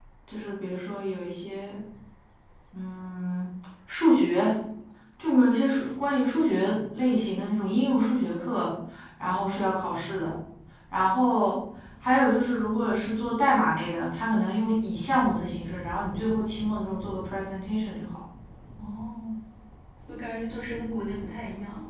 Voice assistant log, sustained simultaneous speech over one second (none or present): none